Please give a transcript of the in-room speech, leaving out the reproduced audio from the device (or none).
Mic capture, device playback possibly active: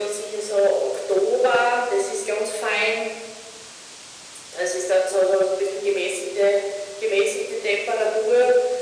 none